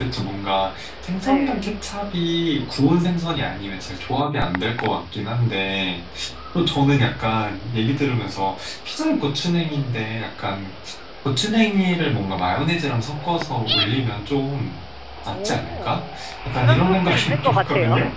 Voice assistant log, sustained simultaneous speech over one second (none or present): present